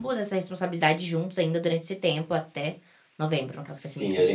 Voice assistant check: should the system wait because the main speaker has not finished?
No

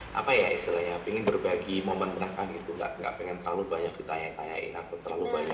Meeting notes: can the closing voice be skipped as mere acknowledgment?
Yes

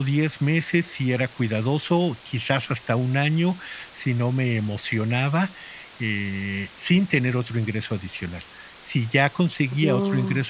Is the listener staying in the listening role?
Yes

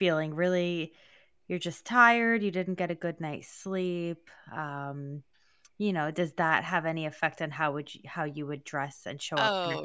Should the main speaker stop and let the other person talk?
Yes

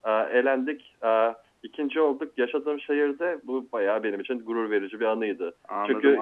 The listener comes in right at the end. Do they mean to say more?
Yes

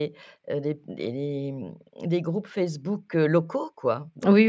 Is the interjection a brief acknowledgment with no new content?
No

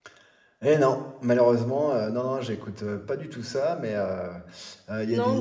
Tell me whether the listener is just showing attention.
No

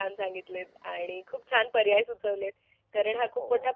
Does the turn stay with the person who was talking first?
Yes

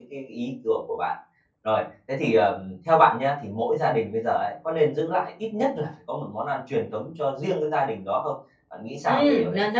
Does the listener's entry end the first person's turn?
Yes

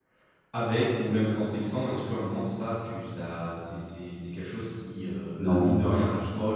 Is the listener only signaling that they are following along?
Yes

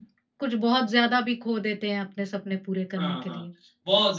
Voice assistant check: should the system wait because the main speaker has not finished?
No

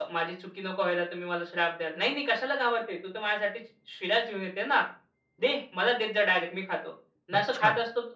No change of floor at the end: Yes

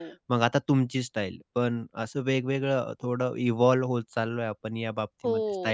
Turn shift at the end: Yes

